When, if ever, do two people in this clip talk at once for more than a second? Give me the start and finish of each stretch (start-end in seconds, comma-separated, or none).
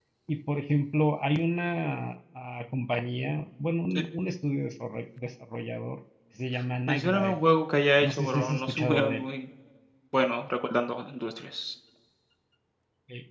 8.0-9.2